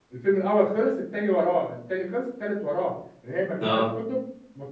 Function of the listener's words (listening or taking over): listening